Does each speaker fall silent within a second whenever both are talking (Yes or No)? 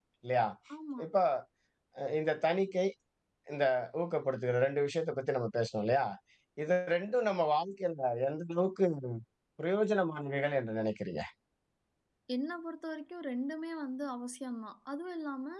Yes